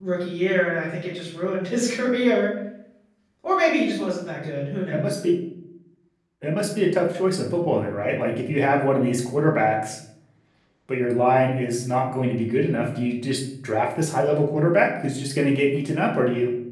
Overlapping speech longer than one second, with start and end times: none

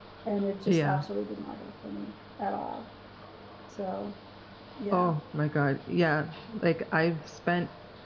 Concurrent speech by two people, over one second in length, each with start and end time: none

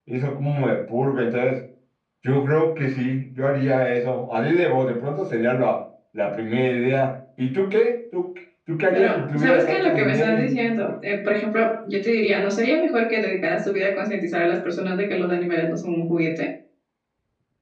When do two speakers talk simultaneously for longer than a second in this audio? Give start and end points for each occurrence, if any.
8.9-10.8

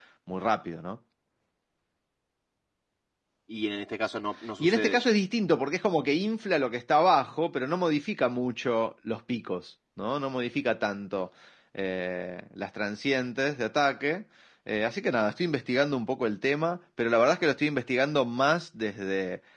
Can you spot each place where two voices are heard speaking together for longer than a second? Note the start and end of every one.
none

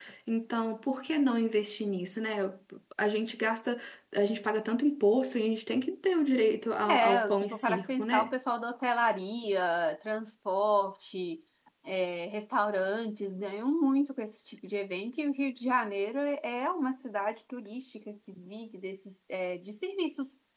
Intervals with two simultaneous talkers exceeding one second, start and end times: 6.9-8.3

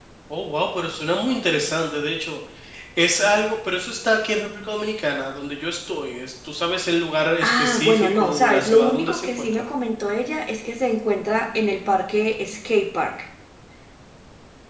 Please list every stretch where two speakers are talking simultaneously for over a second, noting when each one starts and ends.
7.4-9.6

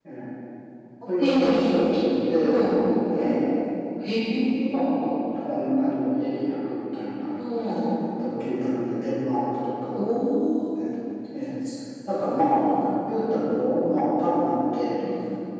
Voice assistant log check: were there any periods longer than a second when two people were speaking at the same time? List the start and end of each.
none

